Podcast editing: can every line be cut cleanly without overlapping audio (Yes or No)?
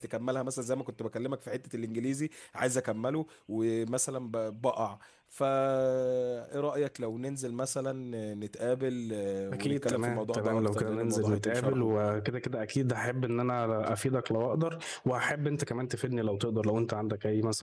No